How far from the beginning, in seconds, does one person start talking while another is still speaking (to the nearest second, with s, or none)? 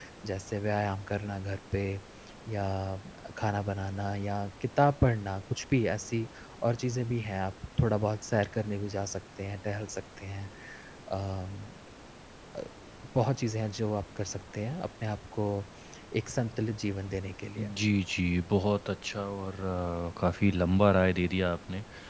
none